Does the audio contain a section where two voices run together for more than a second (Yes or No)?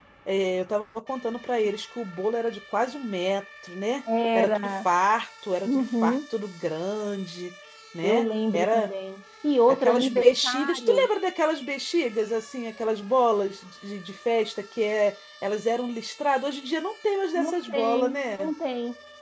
Yes